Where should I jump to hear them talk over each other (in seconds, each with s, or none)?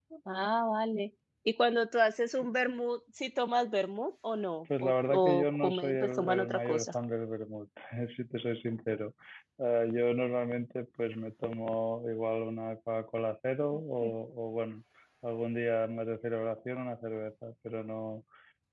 4.7 s